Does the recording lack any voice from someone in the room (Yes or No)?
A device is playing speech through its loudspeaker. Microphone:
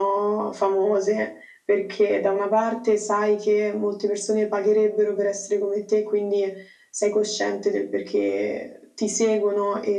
Yes